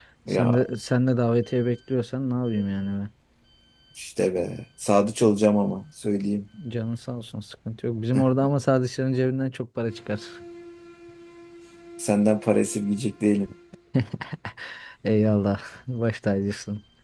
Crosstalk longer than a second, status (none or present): none